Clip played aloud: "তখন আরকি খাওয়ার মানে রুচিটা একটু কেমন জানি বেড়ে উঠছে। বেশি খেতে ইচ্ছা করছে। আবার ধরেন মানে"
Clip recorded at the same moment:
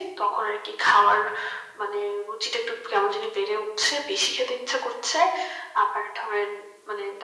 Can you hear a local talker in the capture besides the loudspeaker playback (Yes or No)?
No